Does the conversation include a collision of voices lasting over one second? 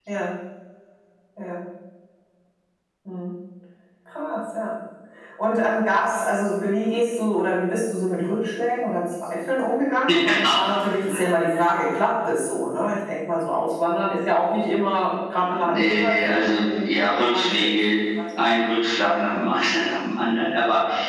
Yes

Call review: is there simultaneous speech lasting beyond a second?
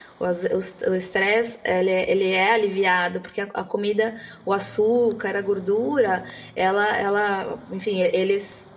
No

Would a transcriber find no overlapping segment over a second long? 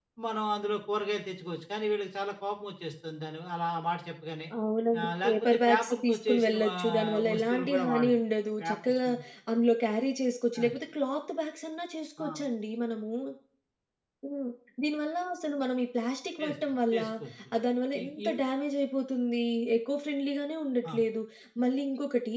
No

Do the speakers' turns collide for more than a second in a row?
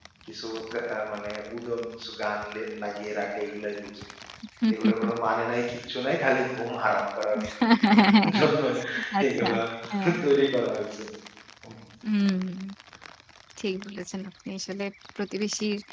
No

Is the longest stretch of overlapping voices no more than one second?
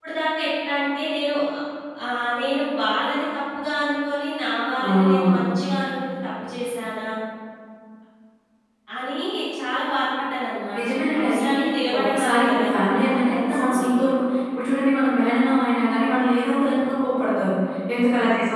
No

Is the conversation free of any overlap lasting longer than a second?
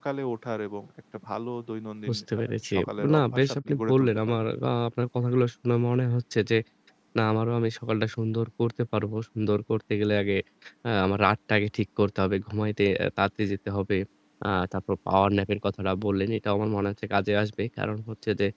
No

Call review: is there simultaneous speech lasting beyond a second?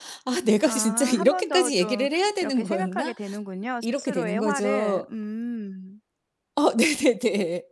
Yes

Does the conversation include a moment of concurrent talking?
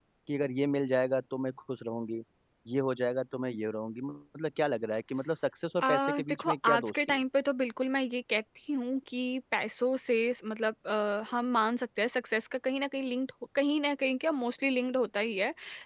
Yes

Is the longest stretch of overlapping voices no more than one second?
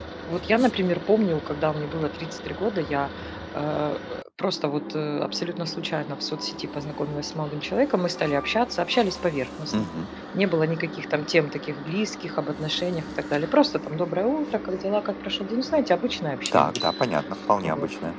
Yes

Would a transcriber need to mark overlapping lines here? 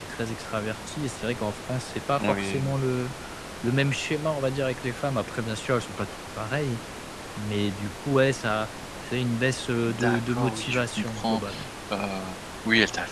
Yes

